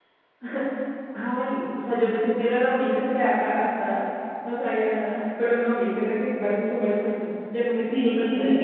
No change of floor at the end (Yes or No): No